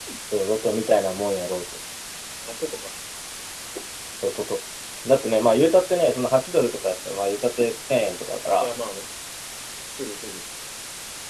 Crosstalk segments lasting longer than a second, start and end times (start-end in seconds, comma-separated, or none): none